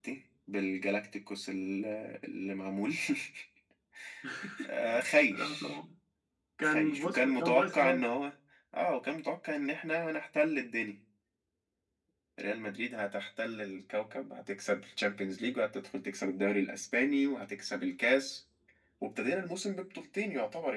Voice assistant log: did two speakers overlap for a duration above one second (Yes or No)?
Yes